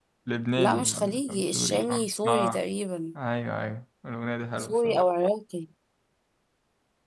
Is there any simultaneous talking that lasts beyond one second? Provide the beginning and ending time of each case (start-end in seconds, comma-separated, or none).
0.6-2.6